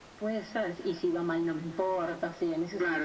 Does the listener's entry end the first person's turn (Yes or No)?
Yes